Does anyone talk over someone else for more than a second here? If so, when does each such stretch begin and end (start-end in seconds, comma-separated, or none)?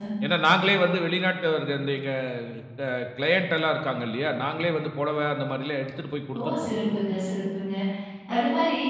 none